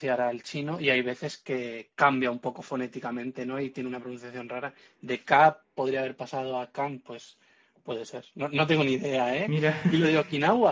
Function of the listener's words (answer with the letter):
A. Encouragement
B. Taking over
A